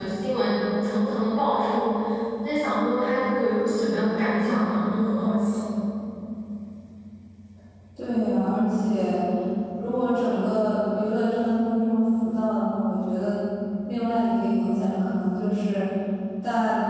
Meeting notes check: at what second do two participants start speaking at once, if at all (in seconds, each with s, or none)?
none